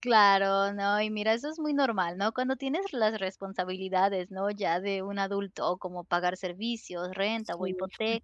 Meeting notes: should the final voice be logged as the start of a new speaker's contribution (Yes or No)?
No